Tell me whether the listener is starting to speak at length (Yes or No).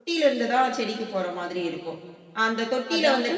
No